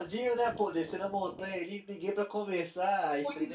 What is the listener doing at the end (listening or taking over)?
taking over